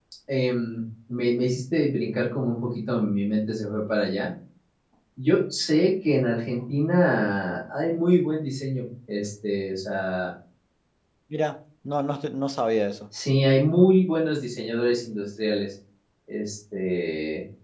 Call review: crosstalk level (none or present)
none